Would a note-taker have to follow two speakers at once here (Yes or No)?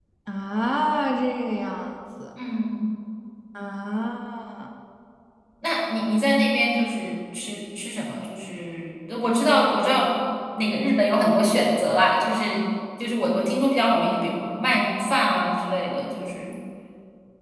No